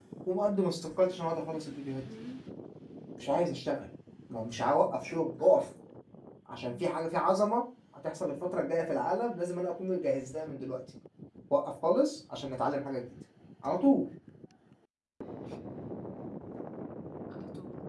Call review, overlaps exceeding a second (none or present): none